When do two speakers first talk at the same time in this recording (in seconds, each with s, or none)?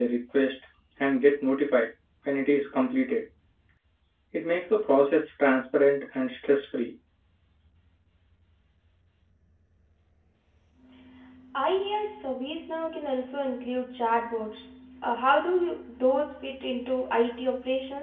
none